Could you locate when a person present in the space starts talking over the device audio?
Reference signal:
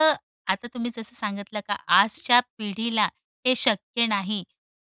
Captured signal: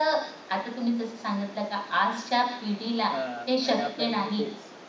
3.1 s

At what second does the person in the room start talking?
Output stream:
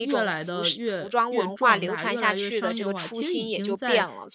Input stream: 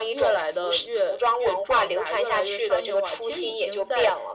none

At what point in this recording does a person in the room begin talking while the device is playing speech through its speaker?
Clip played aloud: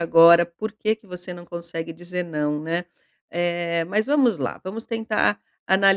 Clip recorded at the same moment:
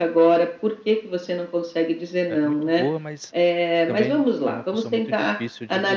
2.3 s

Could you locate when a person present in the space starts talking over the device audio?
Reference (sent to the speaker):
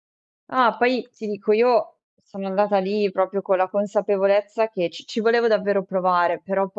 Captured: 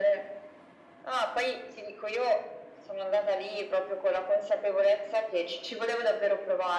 none

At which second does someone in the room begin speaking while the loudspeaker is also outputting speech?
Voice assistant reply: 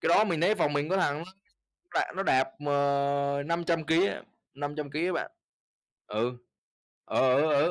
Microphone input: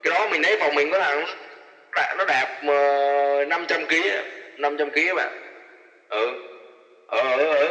none

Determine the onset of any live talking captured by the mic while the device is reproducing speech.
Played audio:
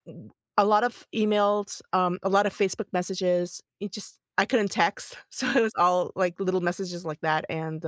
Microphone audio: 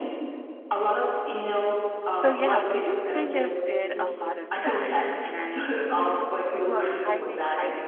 2.1 s

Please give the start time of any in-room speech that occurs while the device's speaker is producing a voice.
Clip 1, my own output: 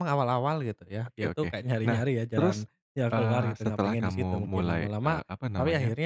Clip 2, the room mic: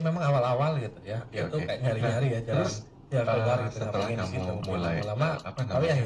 none

